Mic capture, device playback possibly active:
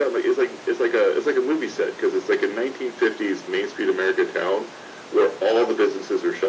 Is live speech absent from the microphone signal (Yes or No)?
Yes